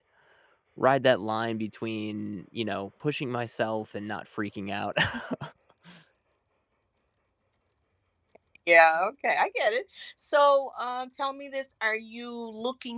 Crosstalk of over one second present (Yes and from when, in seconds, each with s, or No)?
No